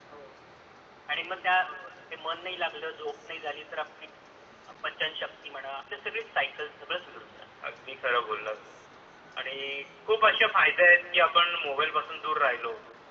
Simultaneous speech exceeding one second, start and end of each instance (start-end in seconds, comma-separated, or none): none